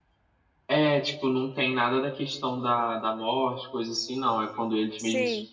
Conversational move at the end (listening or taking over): listening